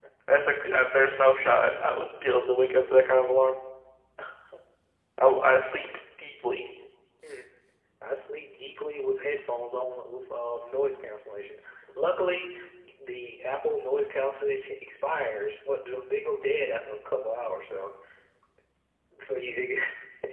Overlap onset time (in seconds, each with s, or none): none